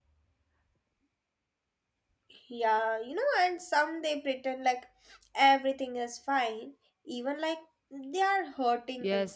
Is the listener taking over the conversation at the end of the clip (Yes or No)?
Yes